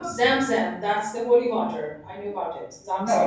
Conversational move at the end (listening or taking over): taking over